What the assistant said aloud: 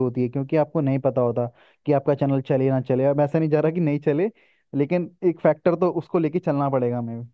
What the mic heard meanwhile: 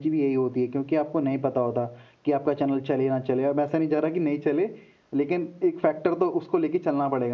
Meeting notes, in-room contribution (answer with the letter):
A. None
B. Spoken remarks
A